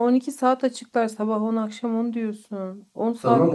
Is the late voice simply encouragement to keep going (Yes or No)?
No